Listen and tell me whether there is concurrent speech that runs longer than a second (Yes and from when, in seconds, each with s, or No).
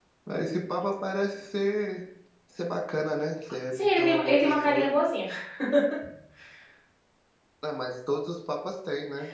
Yes, from 3.7 s